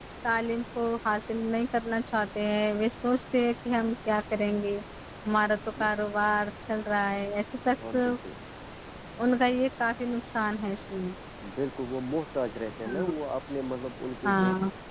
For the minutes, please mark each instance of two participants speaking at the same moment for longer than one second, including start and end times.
none

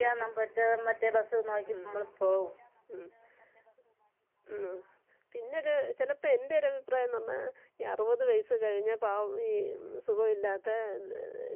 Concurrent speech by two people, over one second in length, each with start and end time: none

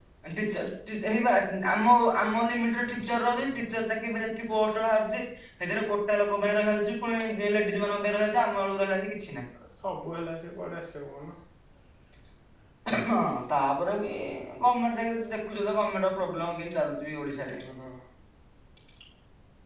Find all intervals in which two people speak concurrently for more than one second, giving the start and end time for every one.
none

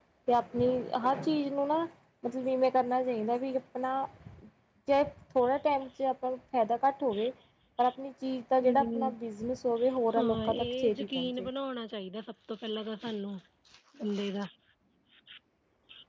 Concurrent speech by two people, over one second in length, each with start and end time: 10.2-11.5

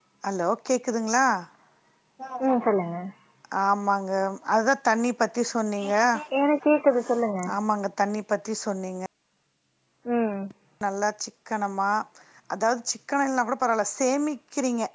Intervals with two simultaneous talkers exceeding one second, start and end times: none

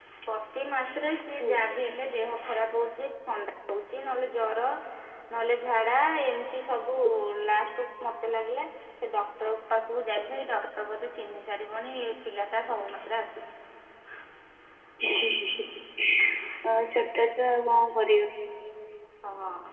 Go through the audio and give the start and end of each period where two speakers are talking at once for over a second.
none

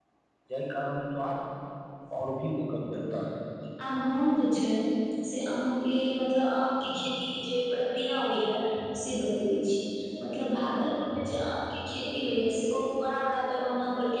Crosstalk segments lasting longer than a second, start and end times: none

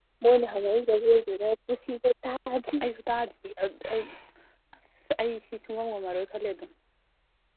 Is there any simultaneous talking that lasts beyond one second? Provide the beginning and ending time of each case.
none

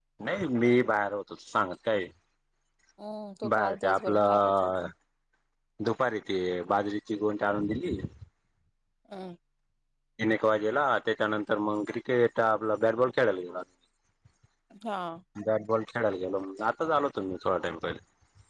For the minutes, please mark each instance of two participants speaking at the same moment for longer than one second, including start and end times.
3.5-4.9

